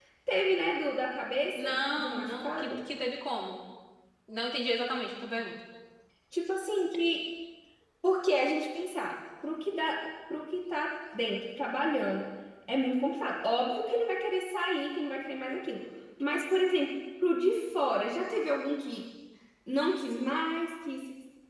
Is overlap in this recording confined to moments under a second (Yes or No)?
No